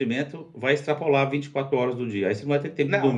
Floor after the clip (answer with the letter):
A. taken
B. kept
A